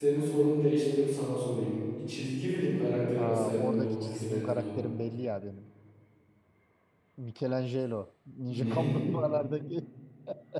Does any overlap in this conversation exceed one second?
Yes, from 3.2 s

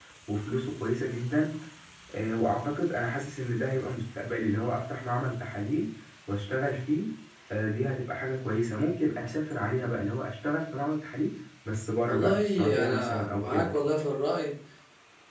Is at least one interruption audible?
Yes, from 12.1 s

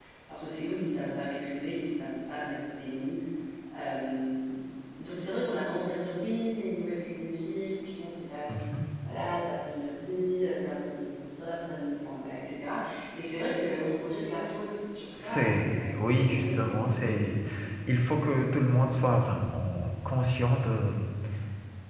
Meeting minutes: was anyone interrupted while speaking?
Yes, from 15.2 s

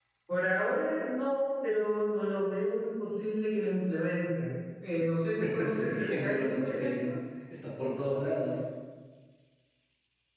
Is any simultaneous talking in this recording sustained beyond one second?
Yes, from 5.6 s

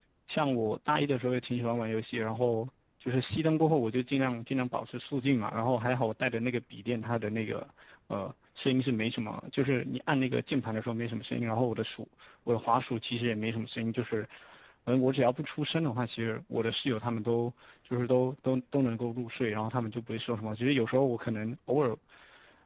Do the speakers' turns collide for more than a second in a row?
No

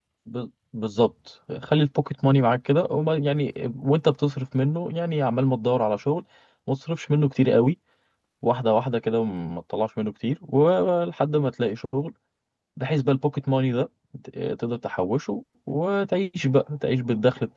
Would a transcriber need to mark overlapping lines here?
No

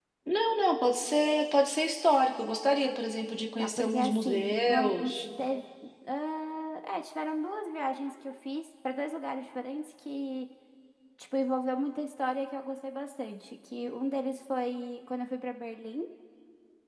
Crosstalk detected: Yes, from 3.6 s

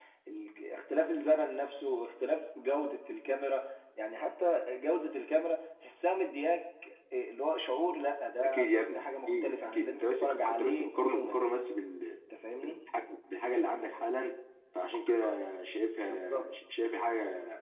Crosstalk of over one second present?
Yes, from 8.4 s

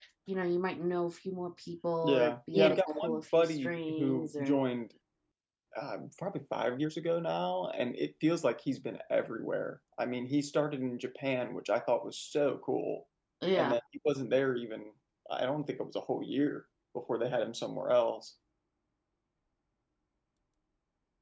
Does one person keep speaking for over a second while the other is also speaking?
Yes, from 2.0 s

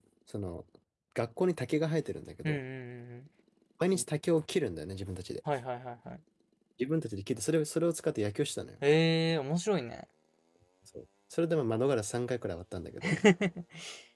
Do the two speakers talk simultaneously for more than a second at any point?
No

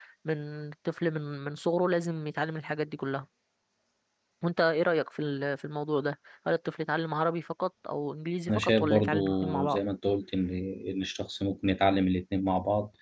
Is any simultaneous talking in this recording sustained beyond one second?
Yes, from 8.5 s

